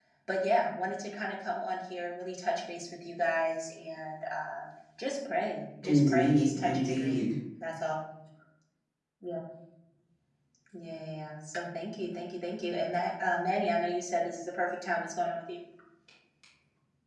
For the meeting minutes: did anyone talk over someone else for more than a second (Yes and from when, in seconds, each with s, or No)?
Yes, from 5.8 s